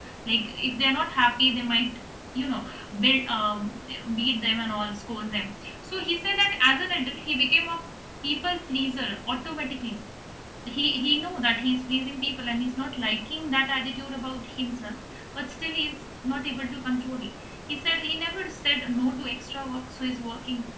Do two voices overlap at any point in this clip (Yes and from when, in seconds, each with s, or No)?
No